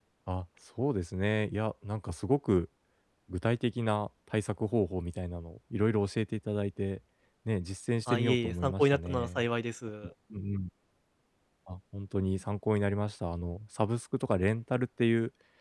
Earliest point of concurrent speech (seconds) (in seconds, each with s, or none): 8.1 s